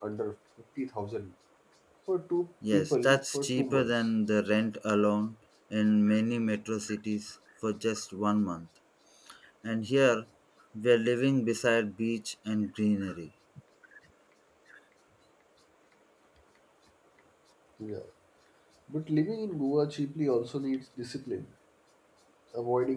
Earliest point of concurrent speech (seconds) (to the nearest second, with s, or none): 3 s